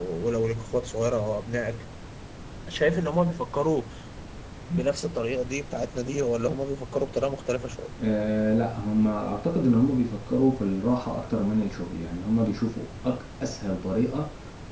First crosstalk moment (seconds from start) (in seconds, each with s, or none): none